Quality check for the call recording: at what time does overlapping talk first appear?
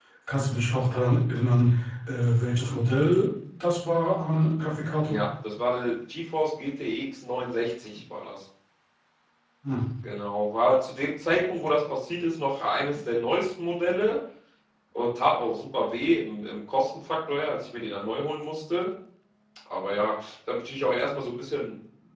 none

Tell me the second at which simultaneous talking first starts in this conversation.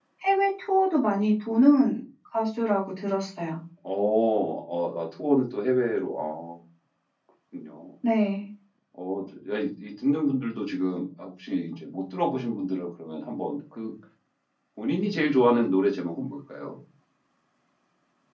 none

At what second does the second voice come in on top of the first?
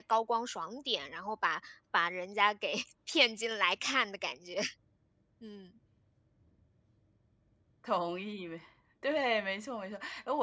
none

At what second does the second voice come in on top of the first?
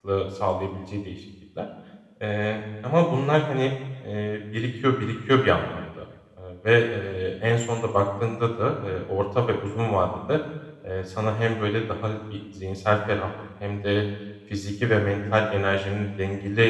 none

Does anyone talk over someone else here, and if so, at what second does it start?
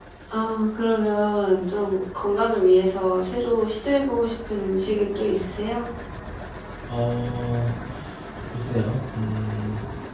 none

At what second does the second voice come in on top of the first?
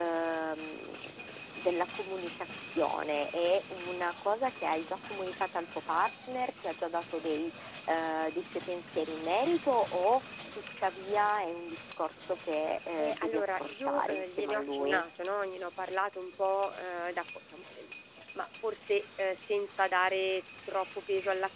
13.0 s

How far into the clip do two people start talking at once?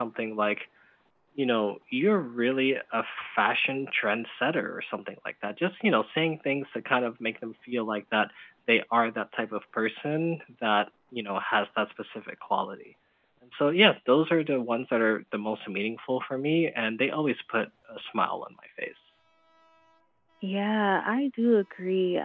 none

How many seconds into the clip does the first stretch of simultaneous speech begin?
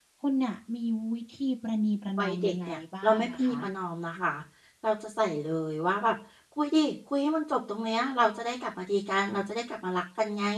2.2 s

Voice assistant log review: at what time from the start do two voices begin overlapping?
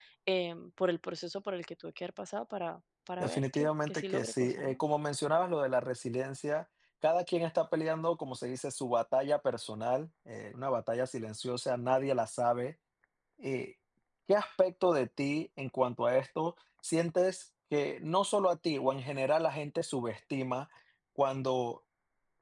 3.2 s

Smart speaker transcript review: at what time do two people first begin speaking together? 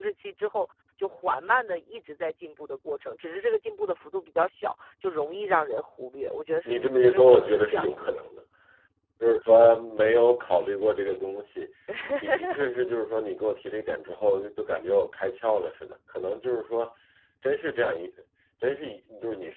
6.6 s

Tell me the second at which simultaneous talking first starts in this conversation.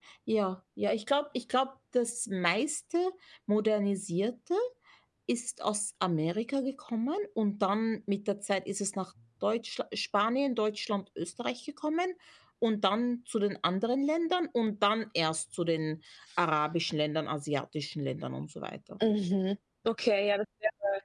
none

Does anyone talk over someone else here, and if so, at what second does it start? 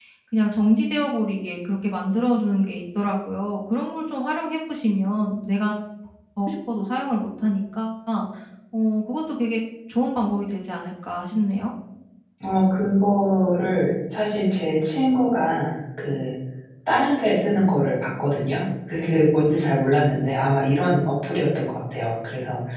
none

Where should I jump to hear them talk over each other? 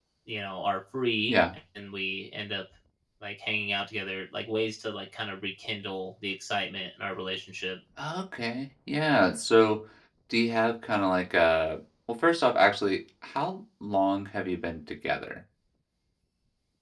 none

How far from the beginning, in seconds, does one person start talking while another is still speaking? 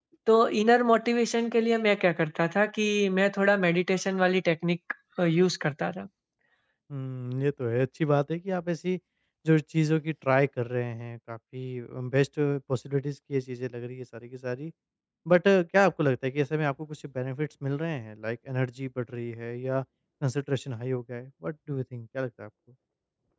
none

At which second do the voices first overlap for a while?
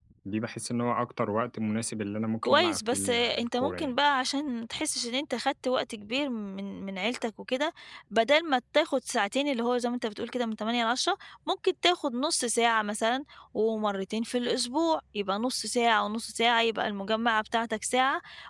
2.4 s

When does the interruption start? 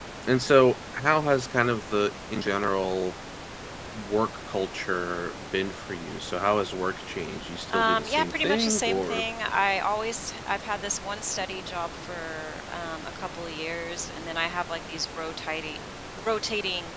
7.7 s

